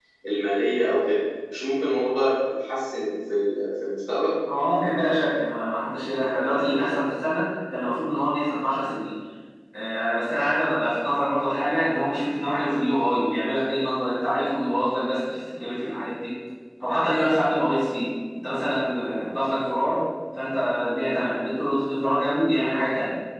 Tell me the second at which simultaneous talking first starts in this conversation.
none

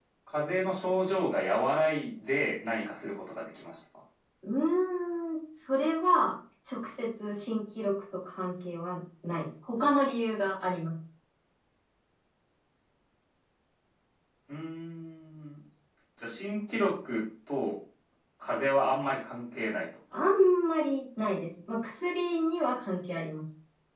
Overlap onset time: none

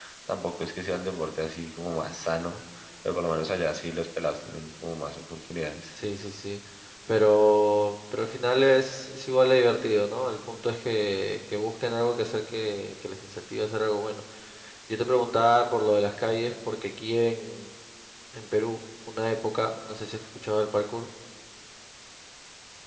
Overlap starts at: none

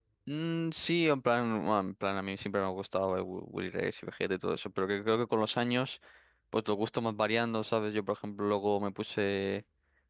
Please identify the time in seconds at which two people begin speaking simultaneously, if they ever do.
none

